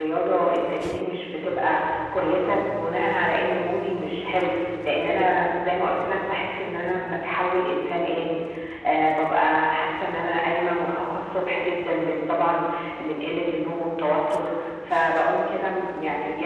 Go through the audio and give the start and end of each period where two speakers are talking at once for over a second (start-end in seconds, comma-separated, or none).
none